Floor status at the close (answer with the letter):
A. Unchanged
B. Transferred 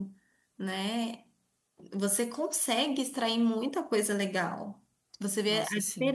A